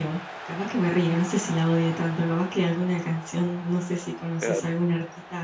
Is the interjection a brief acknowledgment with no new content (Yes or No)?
Yes